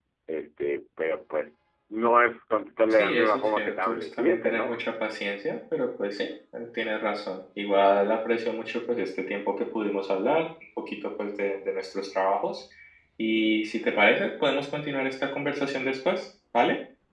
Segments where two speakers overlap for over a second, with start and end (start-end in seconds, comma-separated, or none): 2.9-4.9